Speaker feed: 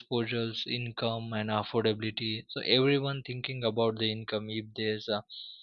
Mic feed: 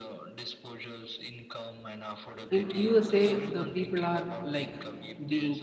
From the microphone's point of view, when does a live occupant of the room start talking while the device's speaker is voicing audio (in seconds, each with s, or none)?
2.5 s